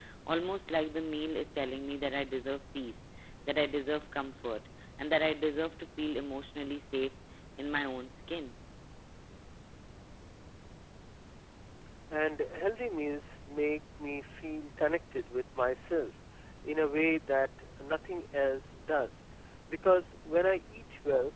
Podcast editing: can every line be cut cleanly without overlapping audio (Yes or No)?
Yes